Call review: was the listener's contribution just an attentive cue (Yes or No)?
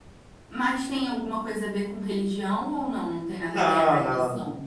No